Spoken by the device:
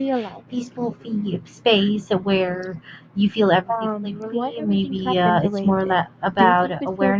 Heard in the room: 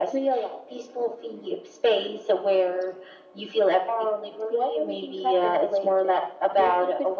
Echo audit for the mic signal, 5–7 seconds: echo only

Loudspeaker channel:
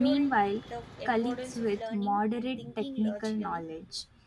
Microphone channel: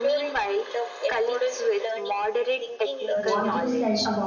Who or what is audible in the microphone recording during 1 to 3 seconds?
echo only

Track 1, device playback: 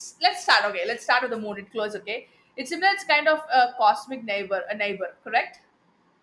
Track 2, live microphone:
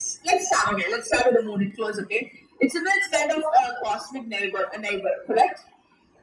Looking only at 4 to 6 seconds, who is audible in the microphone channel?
echo only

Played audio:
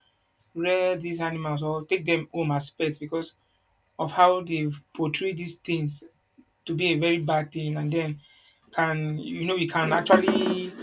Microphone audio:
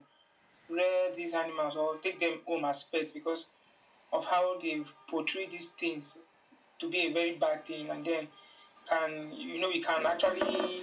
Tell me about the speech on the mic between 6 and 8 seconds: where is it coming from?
echo only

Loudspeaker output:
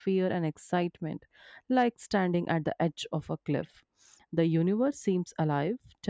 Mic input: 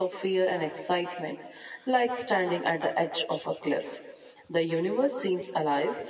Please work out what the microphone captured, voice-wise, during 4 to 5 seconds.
echo only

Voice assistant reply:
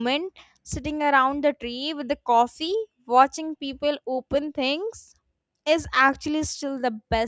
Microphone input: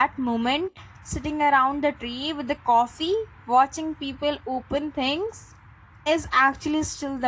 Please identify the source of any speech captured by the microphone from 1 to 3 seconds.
echo only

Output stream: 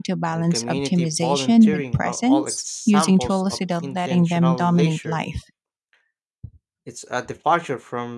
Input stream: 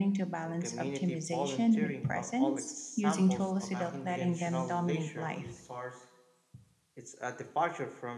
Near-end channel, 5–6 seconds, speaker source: both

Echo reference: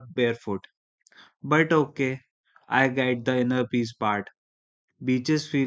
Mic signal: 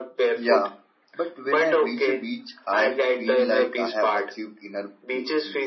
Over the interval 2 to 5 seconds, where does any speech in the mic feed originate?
both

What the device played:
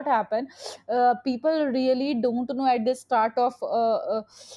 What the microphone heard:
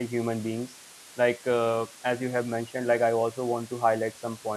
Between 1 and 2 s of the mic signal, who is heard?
user only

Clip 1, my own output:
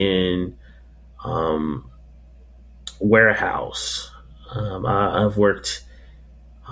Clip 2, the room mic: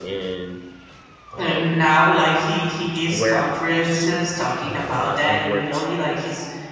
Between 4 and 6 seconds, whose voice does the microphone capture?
both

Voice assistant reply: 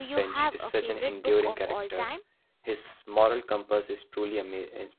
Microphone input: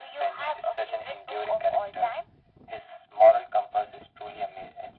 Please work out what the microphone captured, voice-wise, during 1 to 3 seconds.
echo only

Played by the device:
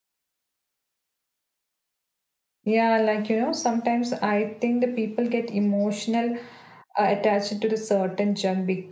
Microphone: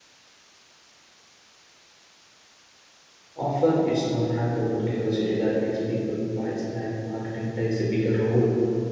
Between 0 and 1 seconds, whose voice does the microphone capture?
neither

